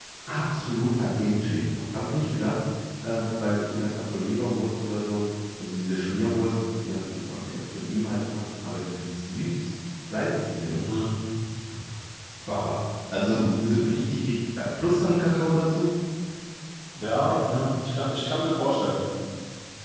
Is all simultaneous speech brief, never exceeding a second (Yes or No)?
Yes